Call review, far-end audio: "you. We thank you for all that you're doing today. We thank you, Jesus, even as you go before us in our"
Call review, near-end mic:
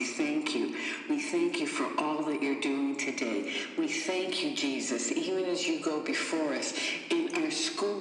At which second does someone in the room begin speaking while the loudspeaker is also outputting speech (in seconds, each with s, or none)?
none